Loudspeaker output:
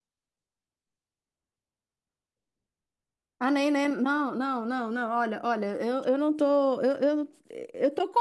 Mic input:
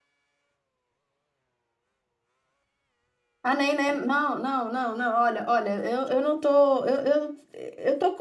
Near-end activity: none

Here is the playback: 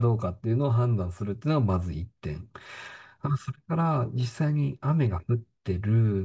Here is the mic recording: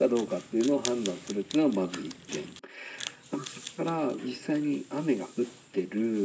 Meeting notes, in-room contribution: none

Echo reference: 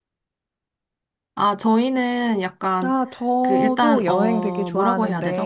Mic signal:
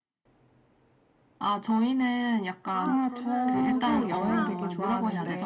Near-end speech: present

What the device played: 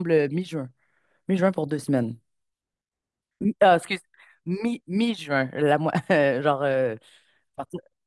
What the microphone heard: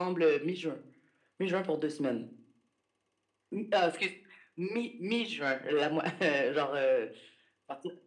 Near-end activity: none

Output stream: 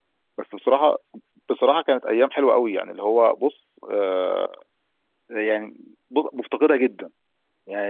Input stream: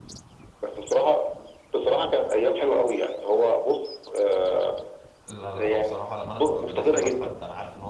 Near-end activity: present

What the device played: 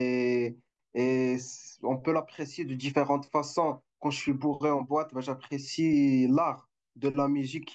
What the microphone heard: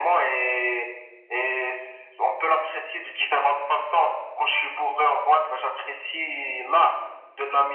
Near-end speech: none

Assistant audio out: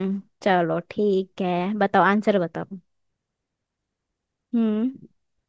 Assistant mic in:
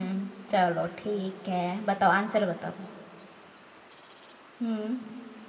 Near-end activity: none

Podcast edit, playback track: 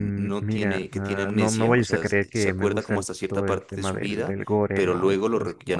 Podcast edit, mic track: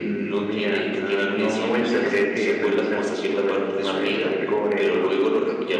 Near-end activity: none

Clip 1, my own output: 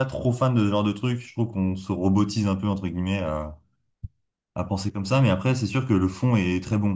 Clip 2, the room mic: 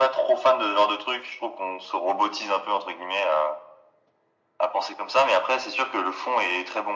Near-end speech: none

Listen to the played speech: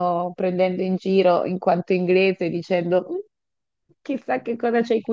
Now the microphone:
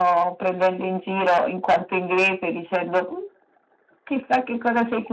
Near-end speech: none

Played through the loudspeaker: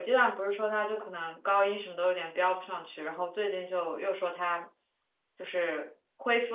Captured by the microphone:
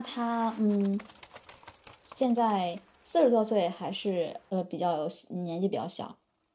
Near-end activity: present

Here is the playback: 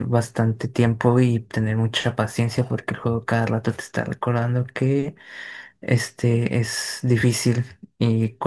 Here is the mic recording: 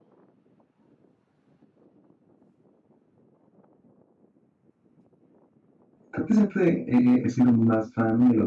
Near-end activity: present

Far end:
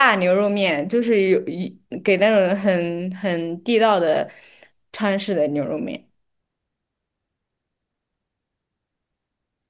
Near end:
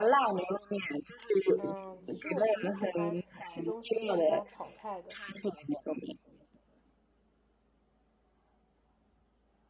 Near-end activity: present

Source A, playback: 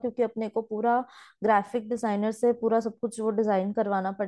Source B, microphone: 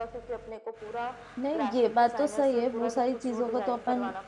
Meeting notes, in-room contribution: present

